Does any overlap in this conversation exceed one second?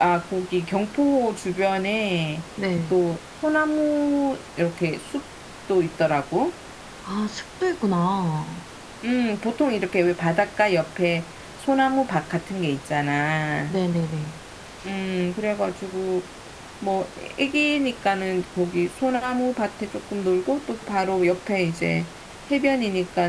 No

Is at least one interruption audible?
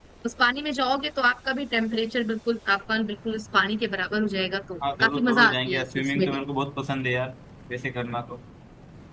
Yes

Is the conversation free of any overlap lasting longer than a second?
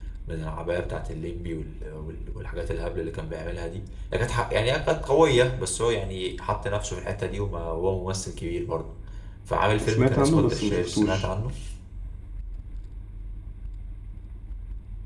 No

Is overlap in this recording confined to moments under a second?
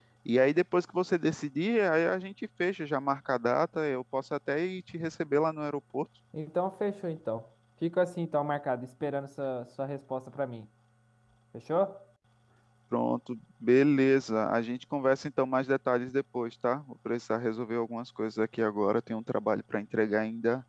Yes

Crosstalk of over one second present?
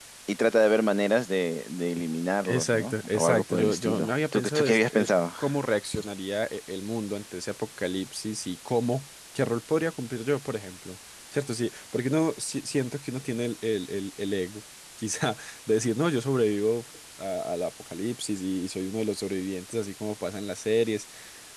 Yes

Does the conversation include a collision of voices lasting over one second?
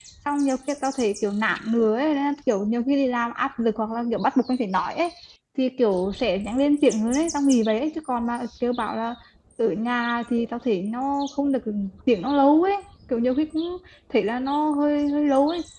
No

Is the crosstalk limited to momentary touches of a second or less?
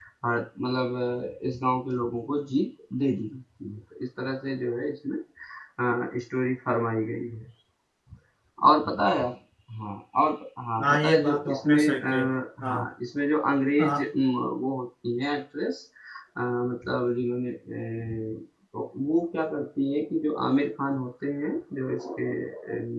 No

